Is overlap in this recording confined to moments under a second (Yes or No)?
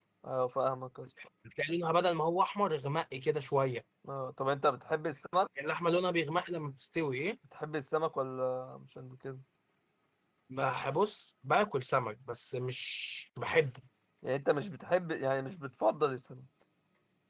Yes